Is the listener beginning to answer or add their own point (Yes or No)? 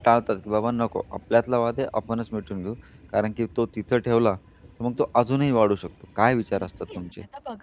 Yes